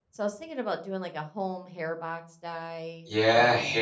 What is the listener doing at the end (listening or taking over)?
taking over